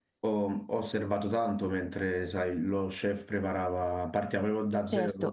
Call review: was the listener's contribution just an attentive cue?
Yes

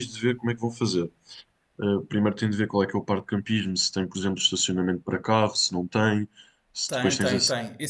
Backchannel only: No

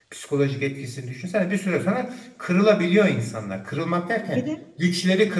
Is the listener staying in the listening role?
Yes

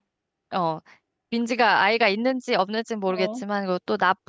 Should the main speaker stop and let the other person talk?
No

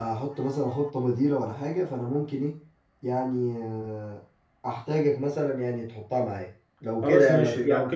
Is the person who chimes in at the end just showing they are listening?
No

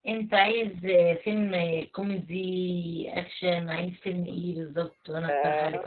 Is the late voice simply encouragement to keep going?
No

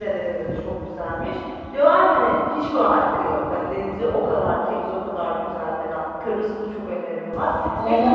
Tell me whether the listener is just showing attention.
No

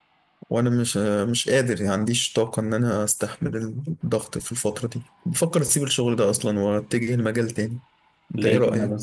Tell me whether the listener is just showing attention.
No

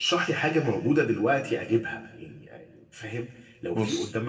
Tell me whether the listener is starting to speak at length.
No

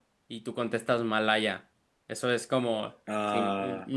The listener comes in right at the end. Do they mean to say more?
No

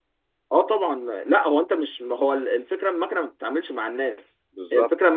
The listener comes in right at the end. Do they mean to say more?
No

